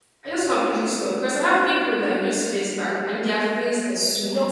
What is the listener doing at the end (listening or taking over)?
listening